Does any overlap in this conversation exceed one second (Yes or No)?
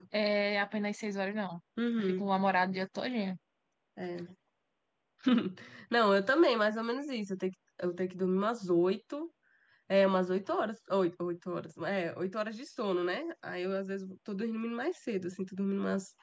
No